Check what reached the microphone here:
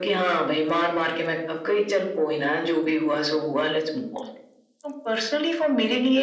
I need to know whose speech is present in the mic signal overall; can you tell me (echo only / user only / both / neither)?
echo only